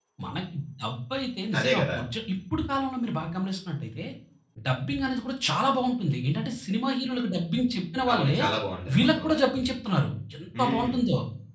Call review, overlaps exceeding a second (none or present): none